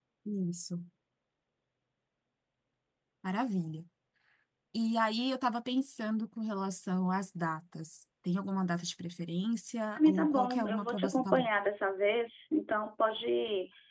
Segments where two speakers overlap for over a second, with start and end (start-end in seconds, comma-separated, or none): 10.0-11.5